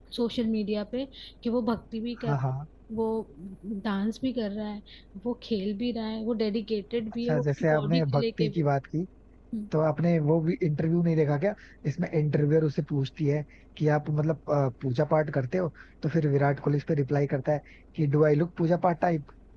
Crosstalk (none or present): present